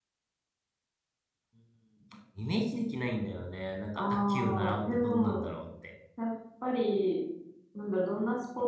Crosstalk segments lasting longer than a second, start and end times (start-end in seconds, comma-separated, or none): 4.0-5.5